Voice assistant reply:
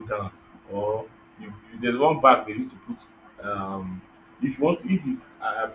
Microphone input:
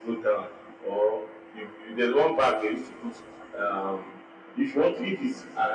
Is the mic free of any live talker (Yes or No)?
Yes